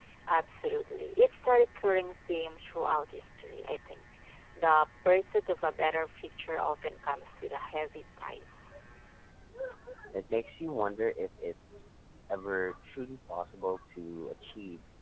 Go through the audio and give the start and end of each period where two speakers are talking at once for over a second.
none

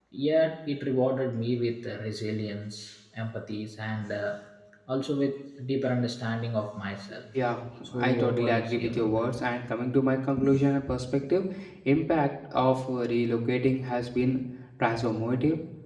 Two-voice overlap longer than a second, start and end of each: 7.9-9.2

